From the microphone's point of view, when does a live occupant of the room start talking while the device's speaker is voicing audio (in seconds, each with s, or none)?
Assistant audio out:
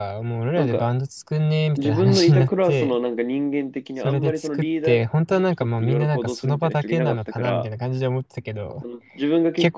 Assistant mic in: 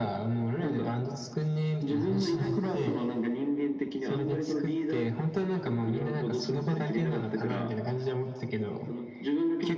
none